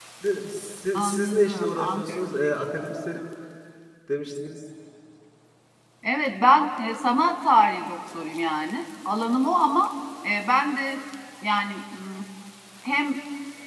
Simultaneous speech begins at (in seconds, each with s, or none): 0.9 s